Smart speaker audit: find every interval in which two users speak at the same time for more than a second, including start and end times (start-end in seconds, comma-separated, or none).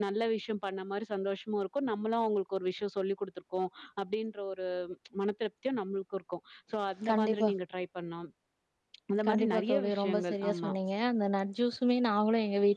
9.3-10.7